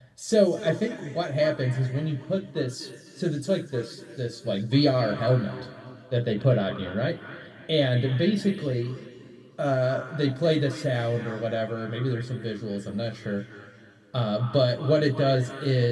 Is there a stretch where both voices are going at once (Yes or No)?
No